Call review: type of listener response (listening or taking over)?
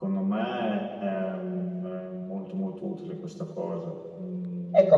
taking over